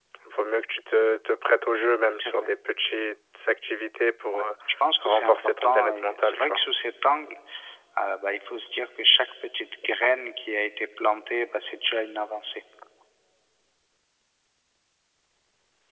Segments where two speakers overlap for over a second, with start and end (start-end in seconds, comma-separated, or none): 5.0-6.6